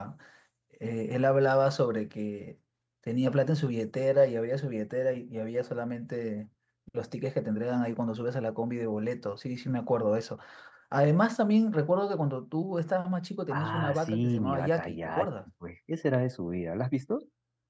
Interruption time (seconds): 14 s

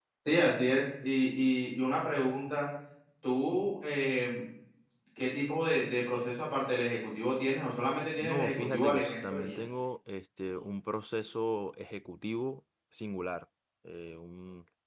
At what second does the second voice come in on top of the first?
8 s

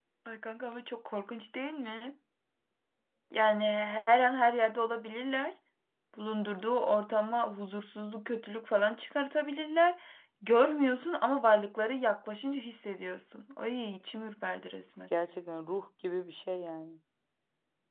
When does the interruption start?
none

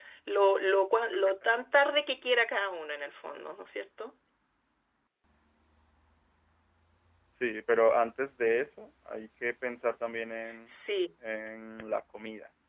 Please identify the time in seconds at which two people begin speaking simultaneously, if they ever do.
none

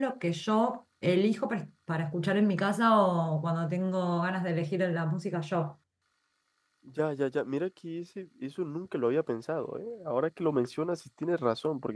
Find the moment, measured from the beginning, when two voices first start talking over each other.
none

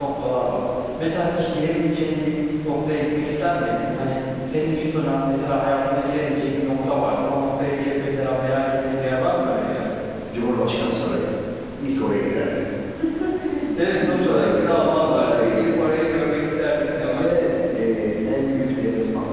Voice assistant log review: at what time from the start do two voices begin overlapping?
14 s

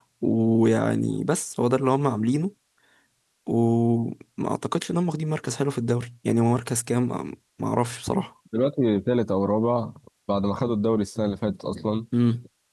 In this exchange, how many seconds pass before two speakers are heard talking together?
none

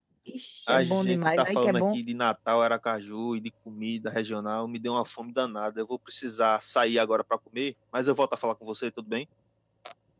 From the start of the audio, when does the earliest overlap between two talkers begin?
1 s

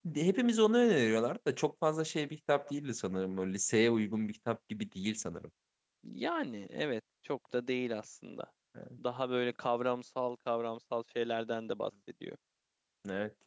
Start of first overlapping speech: none

